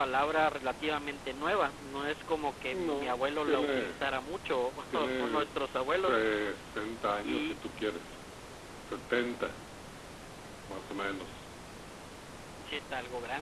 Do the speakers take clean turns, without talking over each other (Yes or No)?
No